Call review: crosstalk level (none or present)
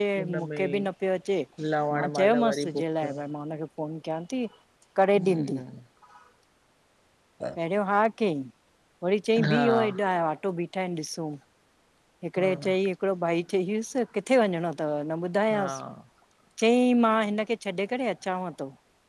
present